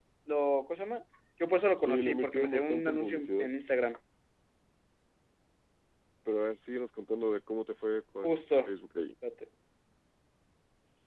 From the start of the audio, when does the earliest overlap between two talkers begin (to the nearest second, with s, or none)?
2 s